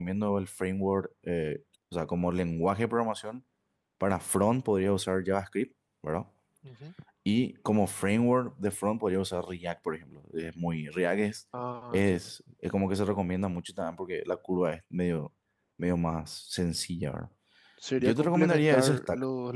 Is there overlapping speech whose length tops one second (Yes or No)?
Yes